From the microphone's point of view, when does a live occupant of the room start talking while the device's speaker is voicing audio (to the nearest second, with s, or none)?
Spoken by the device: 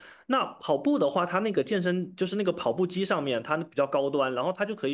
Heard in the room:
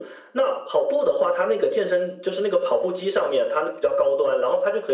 none